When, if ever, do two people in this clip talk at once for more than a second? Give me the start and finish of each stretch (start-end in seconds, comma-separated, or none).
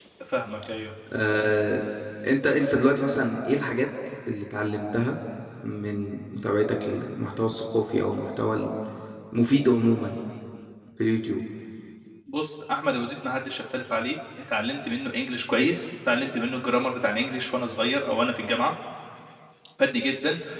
none